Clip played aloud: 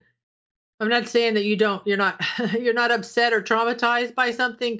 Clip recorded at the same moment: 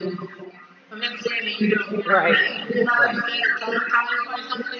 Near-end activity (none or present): present